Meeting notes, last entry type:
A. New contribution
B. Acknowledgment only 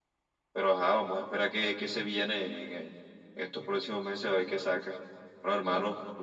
B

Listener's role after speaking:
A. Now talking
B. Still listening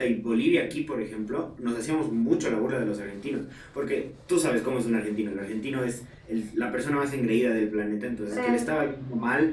B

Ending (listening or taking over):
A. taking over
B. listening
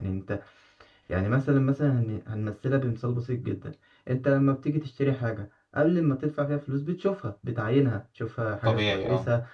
B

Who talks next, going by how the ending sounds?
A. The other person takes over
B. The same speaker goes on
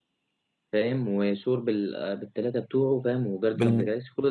A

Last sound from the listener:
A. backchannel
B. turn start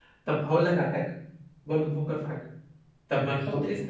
A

